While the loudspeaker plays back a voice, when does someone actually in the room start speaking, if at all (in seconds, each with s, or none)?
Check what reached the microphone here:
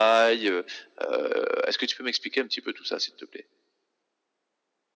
none